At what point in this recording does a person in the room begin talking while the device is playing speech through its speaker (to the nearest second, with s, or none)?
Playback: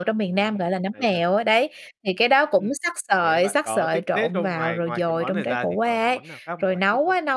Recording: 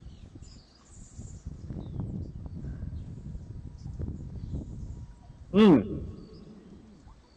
6 s